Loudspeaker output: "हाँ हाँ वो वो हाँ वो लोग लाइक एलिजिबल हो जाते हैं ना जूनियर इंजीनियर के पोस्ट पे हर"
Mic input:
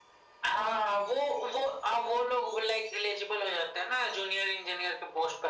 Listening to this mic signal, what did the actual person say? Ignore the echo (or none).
none